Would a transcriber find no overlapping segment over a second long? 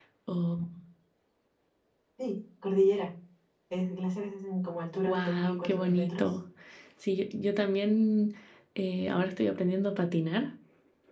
No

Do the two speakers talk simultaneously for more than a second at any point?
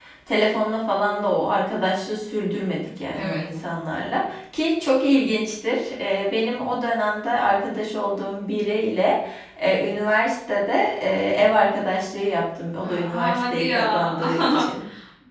Yes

